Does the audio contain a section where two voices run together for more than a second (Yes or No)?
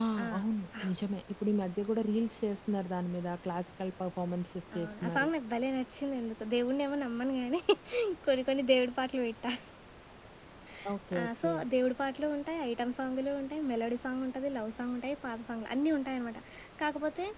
No